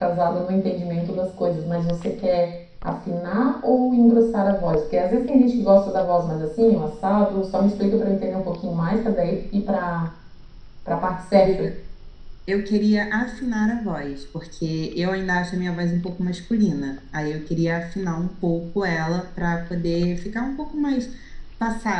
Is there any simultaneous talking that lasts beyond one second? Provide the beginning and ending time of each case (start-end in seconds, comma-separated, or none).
none